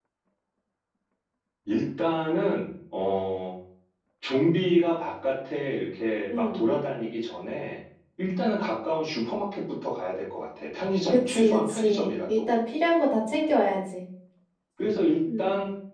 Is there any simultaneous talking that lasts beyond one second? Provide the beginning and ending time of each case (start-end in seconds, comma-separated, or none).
11.1-12.5